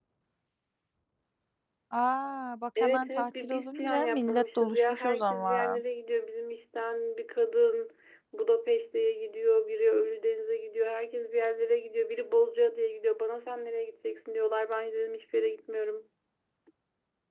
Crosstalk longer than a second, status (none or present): present